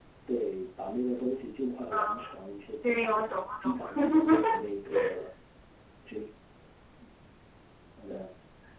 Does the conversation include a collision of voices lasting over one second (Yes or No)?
Yes